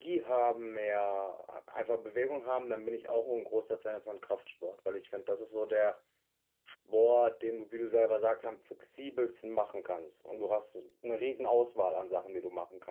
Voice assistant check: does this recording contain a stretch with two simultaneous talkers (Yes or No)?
No